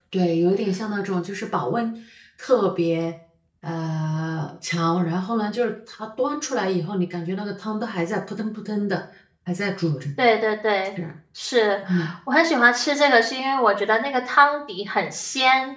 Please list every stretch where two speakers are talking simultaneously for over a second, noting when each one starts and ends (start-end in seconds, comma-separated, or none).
none